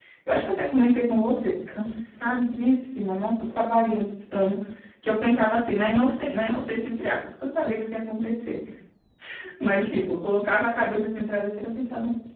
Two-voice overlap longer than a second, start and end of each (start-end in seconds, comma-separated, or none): none